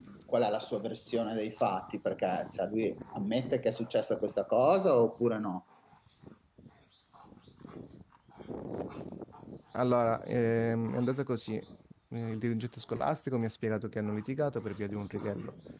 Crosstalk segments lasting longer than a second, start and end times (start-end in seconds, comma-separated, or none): none